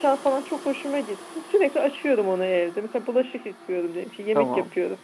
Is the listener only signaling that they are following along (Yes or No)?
Yes